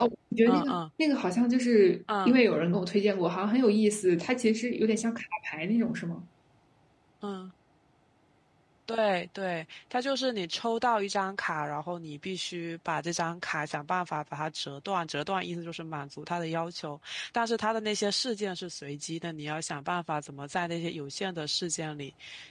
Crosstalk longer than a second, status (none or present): none